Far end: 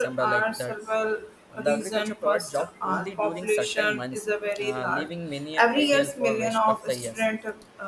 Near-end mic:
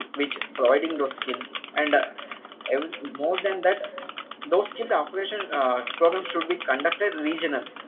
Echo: none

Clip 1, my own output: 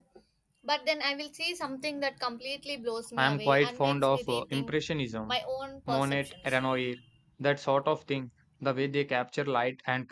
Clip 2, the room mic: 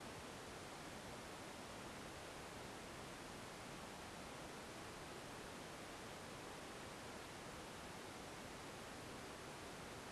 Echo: none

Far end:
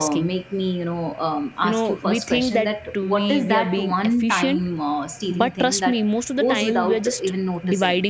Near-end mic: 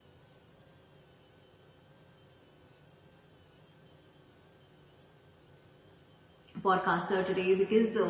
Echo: none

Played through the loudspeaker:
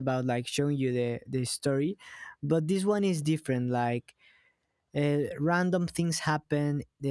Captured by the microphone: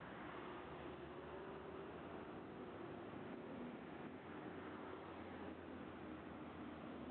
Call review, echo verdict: none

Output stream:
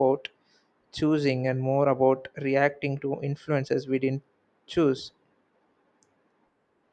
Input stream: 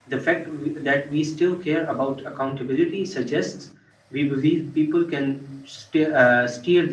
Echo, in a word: none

